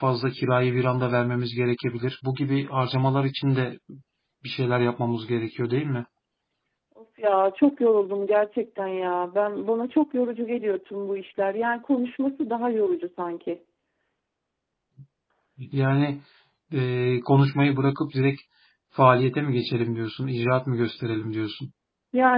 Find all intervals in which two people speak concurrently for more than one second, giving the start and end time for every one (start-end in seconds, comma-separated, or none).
none